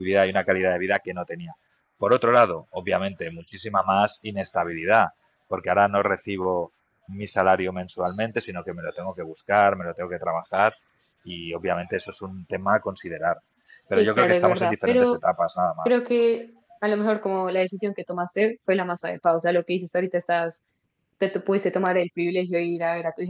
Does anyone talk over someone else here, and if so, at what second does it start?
13.9 s

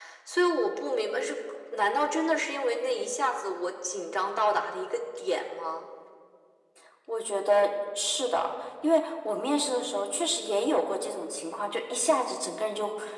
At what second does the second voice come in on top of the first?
none

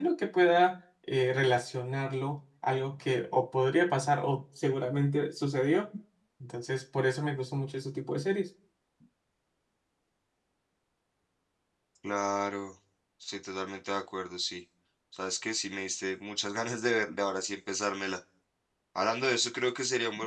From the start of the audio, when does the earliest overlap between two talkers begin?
none

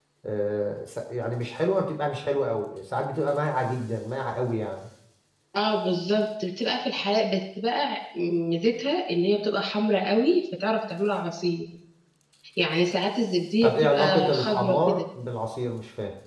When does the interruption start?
13.6 s

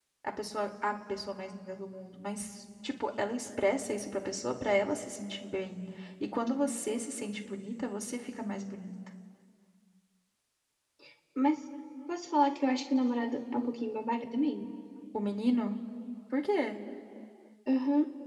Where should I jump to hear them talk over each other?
none

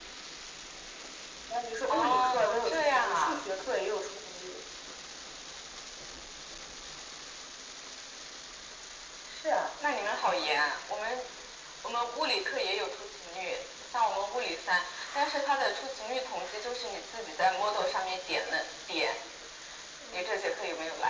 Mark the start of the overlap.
1.9 s

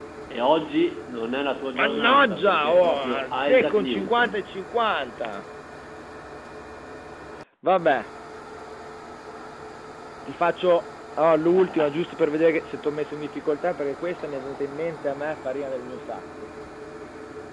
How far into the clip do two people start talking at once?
1.8 s

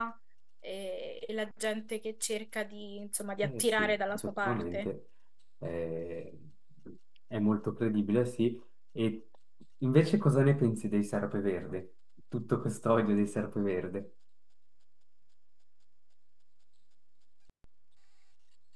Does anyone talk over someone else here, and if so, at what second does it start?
3.4 s

